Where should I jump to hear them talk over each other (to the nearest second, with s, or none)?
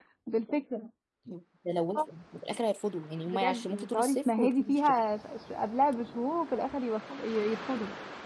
3 s